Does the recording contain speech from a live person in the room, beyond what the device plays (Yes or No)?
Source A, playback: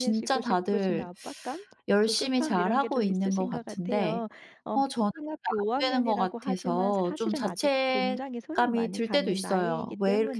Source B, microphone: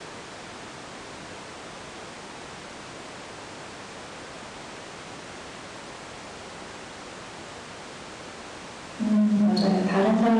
Yes